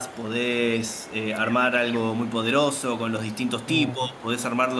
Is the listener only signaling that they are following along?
Yes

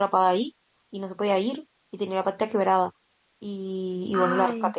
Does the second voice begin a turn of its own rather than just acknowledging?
No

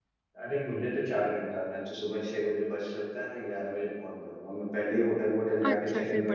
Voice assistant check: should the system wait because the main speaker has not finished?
No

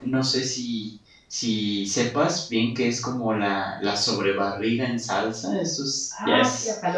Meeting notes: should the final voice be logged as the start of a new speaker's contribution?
Yes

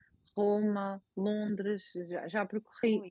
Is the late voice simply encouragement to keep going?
Yes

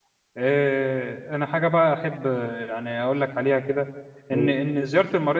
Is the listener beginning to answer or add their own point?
No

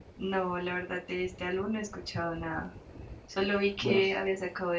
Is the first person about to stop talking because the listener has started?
No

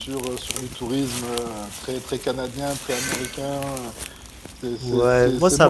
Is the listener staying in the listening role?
No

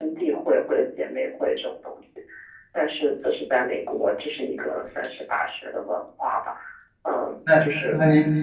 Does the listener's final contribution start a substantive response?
Yes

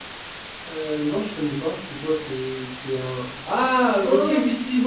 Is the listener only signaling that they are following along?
Yes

